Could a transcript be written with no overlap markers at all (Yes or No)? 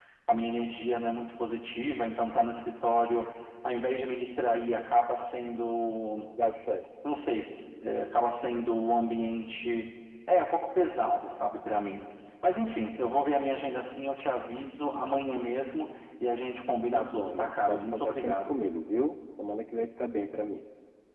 No